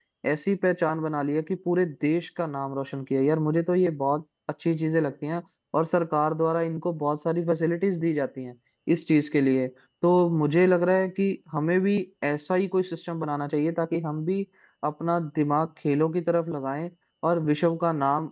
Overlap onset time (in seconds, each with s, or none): none